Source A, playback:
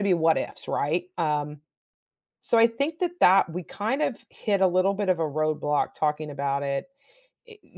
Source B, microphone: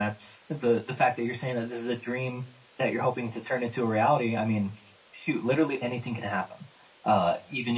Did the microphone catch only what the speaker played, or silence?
No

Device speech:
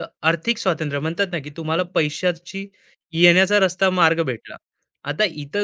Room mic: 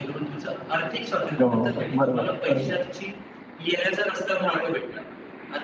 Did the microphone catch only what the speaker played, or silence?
No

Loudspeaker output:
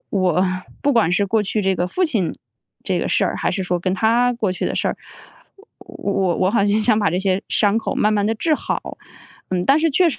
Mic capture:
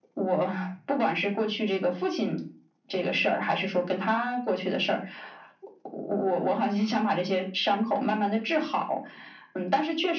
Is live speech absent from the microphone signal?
Yes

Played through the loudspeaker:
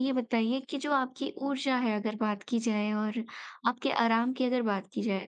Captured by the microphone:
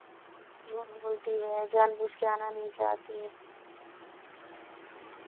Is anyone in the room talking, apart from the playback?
Yes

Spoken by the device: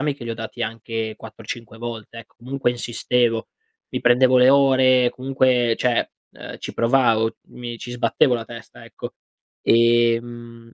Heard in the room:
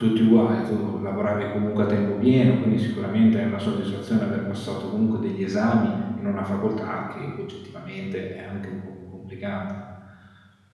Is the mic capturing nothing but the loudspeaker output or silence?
No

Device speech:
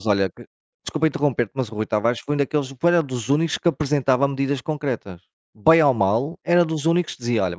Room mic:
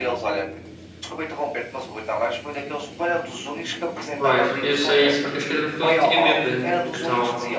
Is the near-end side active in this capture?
Yes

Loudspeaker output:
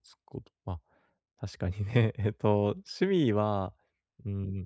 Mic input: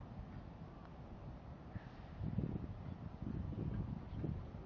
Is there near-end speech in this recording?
No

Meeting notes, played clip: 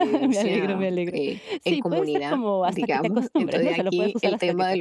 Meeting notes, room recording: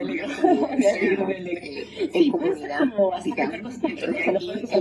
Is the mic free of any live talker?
Yes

